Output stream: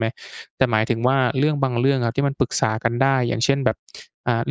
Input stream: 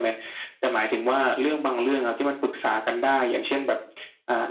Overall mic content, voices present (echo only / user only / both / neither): echo only